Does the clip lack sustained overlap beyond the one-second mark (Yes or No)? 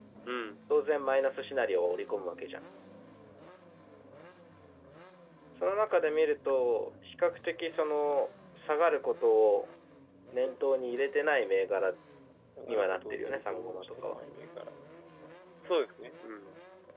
No